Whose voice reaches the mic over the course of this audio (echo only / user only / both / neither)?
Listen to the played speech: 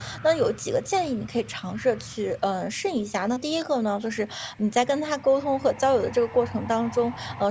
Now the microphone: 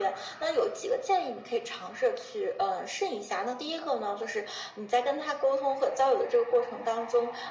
echo only